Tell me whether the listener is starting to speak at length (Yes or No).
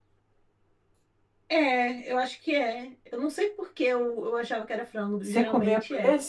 Yes